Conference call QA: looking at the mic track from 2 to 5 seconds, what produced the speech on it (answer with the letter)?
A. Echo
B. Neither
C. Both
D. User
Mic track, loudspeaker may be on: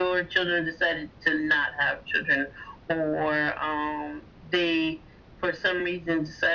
A